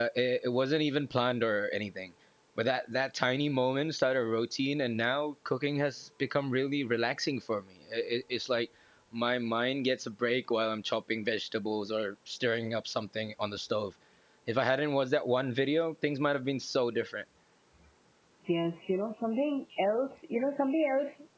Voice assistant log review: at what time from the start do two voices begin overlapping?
none

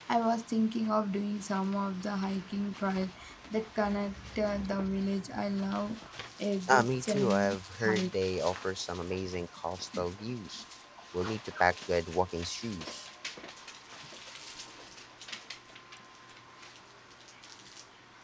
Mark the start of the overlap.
6.7 s

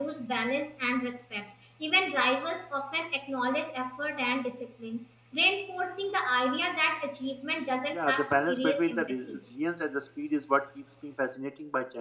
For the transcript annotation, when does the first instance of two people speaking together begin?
7.9 s

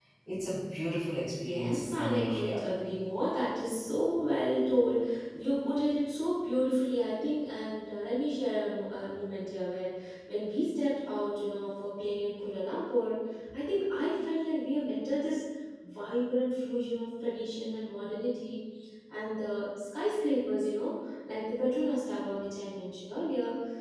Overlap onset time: 1.3 s

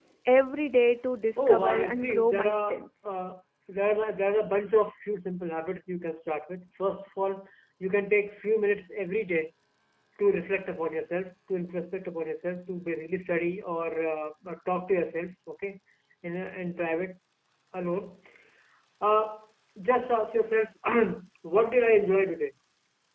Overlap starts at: 1.4 s

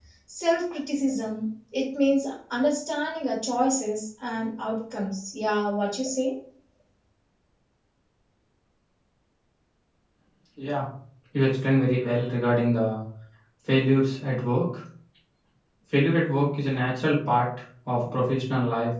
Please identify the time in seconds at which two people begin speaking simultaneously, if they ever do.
none

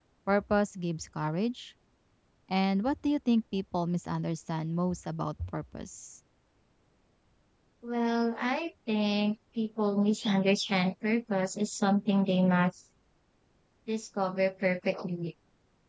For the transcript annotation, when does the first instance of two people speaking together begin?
none

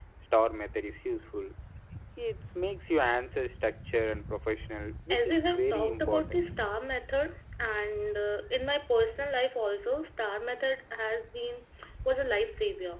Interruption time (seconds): 5.1 s

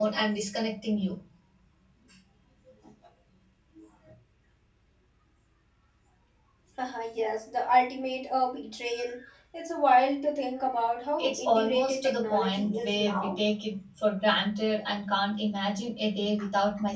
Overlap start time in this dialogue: 11.2 s

